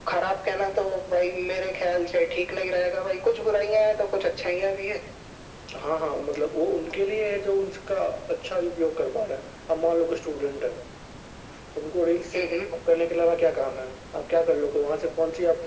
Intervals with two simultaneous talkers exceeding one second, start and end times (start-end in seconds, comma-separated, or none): none